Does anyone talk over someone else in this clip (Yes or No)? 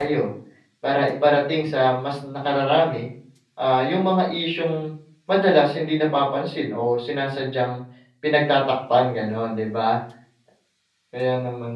No